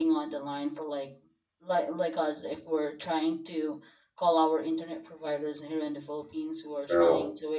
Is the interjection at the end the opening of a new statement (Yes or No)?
No